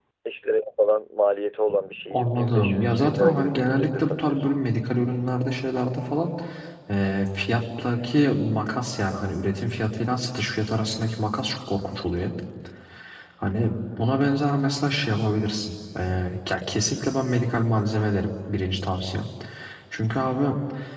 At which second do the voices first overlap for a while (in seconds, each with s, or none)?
2.1 s